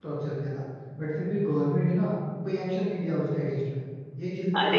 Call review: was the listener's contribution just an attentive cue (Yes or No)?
No